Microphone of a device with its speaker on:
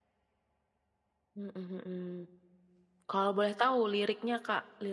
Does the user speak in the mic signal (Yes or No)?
Yes